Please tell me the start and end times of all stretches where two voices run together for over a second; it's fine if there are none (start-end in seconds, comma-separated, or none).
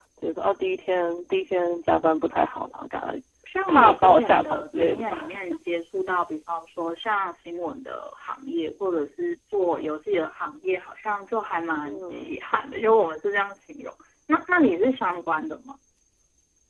3.7-5.2